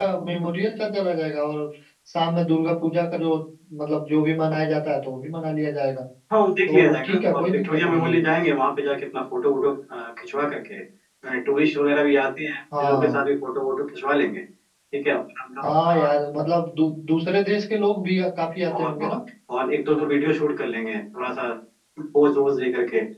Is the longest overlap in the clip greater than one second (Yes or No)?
Yes